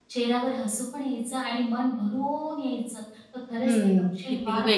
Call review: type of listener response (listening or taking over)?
taking over